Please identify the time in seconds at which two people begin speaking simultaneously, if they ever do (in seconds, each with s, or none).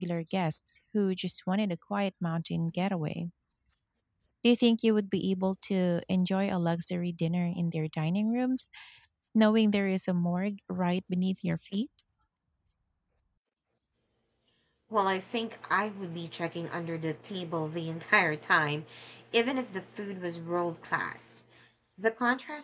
none